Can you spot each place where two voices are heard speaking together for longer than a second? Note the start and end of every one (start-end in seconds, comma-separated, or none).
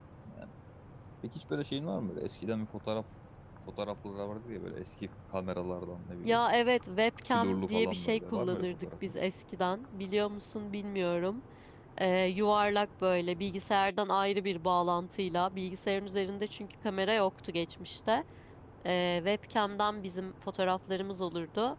7.3-9.1